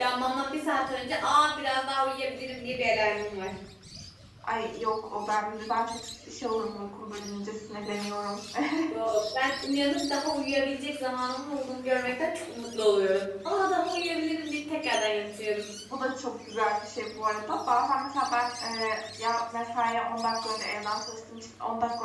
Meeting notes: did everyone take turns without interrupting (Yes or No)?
Yes